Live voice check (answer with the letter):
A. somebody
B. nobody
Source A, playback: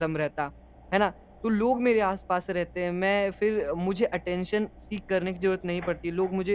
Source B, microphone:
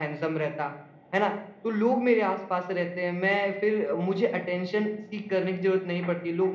B